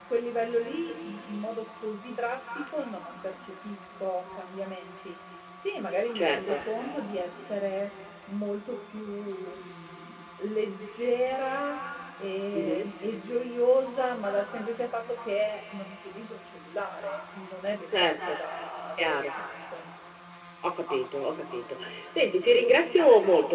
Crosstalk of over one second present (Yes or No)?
No